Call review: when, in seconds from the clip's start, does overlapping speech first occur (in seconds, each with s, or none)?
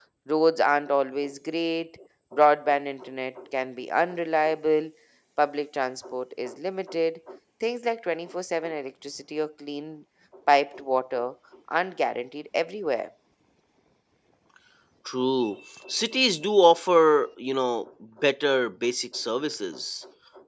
none